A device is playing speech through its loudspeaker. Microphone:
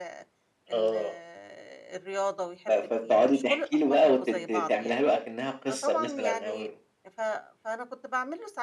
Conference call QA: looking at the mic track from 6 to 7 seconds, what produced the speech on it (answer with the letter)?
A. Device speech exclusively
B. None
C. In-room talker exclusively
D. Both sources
D